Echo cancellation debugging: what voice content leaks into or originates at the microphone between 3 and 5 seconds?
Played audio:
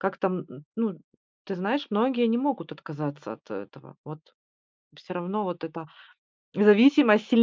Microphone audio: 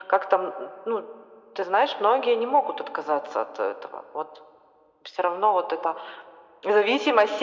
echo only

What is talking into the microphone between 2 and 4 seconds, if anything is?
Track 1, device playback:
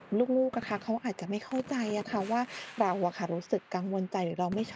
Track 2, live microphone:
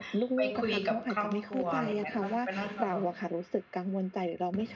both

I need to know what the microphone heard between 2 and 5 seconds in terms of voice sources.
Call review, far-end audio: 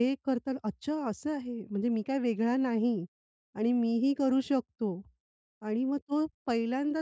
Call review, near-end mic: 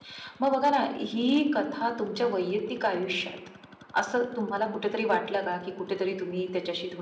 user only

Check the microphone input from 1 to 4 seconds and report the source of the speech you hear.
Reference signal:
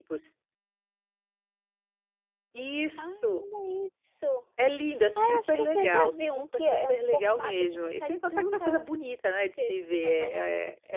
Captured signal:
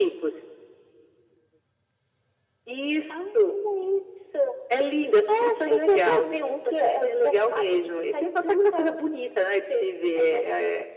echo only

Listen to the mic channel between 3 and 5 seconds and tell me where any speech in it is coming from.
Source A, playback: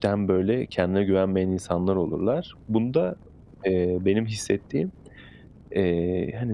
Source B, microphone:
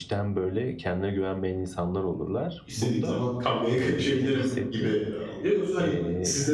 both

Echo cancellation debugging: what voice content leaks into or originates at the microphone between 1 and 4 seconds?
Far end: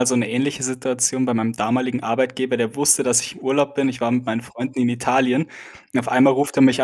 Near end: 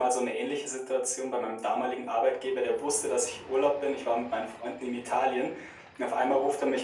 echo only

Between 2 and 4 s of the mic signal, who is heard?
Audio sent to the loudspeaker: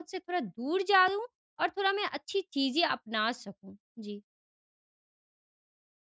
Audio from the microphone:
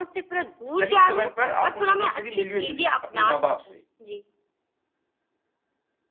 both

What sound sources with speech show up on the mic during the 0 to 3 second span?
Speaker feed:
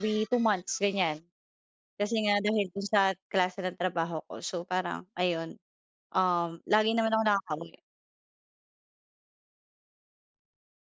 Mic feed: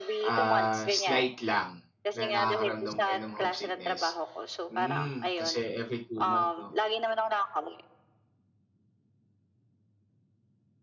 both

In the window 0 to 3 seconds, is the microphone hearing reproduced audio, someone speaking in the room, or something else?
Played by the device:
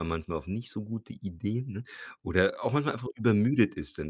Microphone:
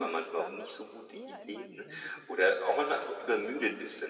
both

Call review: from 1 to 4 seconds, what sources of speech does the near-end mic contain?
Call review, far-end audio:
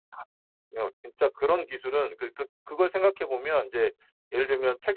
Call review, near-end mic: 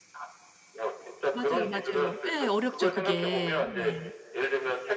both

